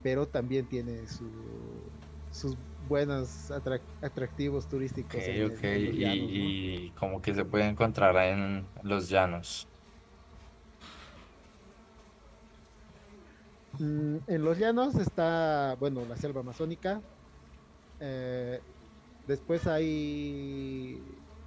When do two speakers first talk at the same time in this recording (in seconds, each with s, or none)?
5.1 s